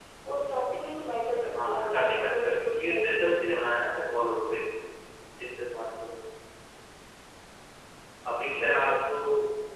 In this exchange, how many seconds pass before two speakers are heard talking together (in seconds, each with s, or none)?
1.6 s